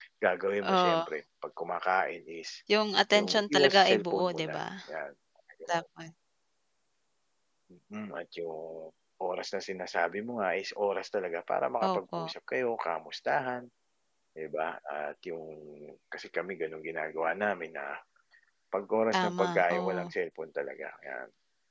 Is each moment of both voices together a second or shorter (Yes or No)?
No